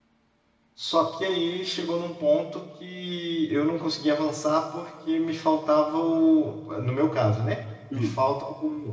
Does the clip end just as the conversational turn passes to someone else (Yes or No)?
No